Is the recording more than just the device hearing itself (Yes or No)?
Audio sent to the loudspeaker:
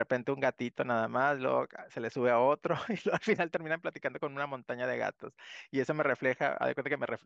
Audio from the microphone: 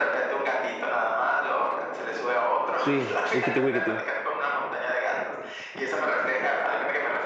Yes